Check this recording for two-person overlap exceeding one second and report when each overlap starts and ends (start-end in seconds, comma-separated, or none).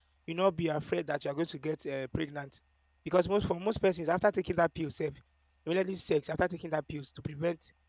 none